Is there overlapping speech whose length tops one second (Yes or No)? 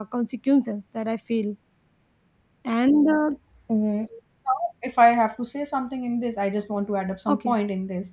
No